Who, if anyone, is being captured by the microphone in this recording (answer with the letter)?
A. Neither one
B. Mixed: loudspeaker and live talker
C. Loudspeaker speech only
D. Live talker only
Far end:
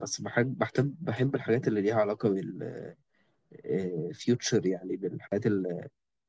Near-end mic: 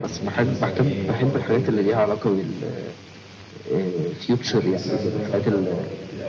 B